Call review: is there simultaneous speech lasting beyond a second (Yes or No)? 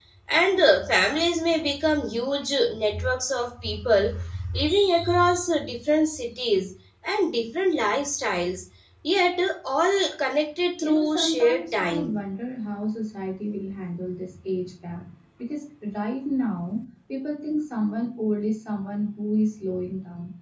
Yes